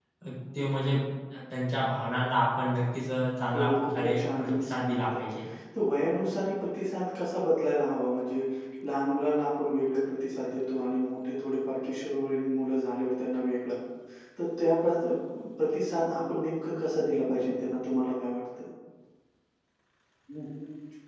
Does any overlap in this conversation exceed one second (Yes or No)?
Yes